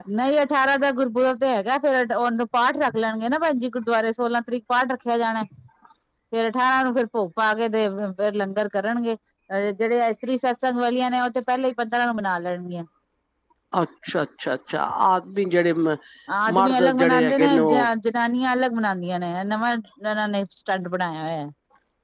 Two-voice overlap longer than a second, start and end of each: 16.6-17.9

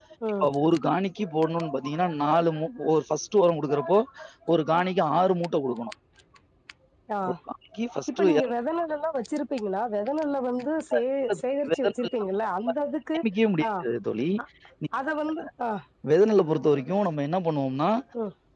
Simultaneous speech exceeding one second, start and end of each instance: none

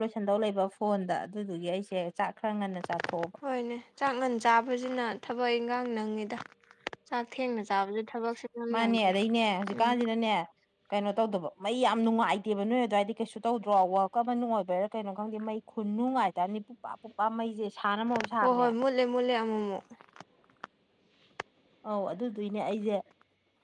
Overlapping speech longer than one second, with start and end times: none

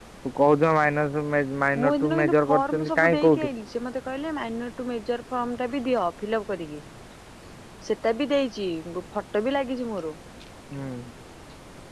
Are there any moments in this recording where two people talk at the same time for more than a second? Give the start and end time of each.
1.8-3.5

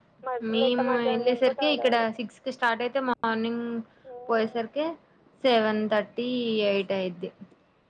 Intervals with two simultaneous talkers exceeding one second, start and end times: 0.5-2.0

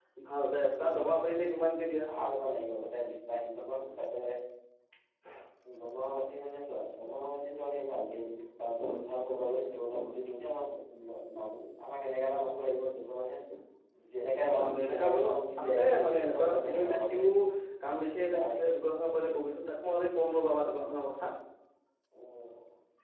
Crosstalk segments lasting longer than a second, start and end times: 14.6-17.2

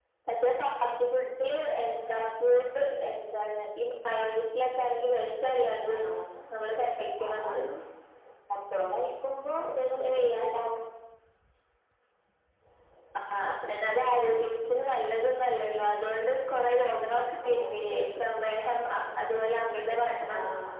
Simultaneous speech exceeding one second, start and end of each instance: none

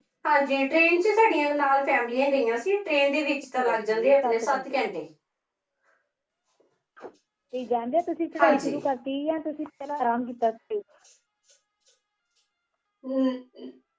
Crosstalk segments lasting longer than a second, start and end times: 3.5-4.8

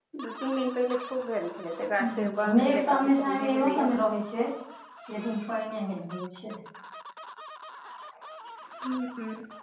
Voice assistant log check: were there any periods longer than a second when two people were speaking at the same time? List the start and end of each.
2.0-3.9

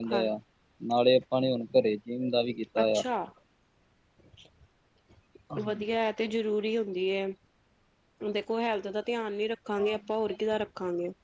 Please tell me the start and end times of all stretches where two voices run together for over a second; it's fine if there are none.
none

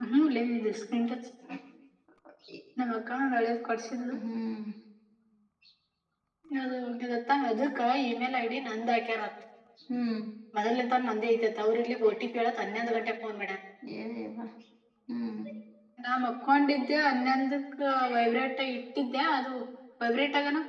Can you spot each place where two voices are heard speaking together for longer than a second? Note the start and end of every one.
none

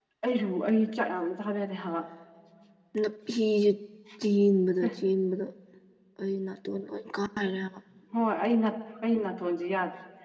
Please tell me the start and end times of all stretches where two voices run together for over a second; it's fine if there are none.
none

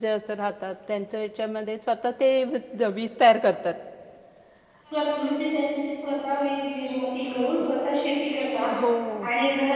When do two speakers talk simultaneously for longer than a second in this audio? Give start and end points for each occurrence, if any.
none

